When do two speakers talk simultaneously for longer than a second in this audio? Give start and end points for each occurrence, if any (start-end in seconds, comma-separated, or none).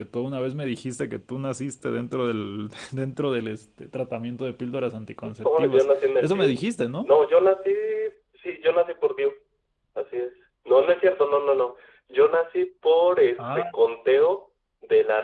5.2-6.6